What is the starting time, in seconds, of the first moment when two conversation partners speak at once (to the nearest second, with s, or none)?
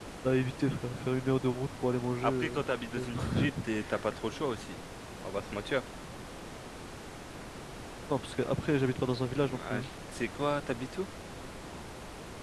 2 s